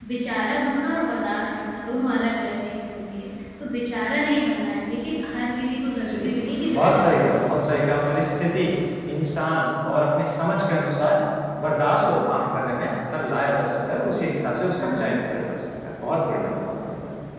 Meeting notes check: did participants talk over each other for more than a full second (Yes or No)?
No